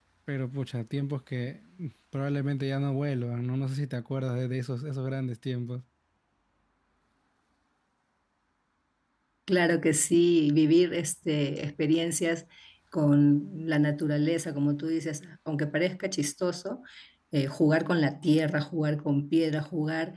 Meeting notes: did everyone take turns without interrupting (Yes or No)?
Yes